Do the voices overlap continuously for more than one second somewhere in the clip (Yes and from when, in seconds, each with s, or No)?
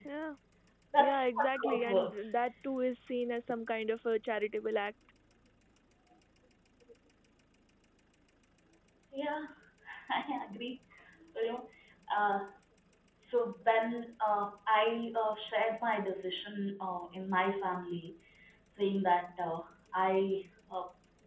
Yes, from 1.0 s